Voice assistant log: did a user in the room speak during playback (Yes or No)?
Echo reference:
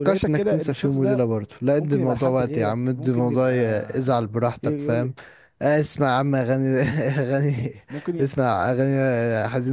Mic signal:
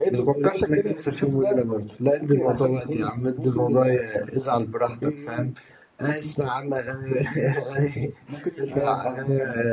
Yes